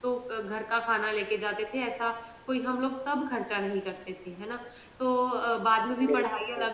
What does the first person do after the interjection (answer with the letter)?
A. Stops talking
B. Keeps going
B